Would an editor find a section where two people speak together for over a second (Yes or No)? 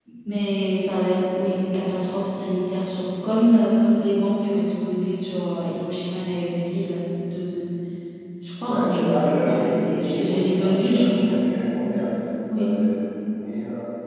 Yes